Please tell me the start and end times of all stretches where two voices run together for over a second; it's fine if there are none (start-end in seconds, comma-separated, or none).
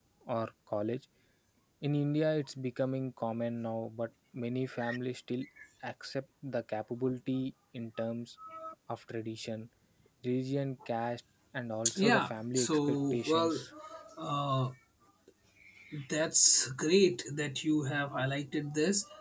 12.0-13.6